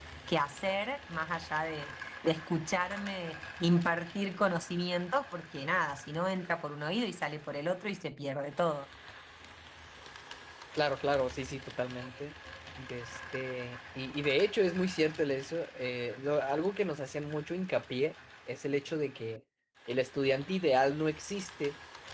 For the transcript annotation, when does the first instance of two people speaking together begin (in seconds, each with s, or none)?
none